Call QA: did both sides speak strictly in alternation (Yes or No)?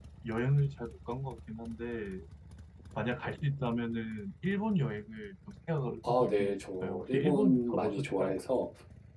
No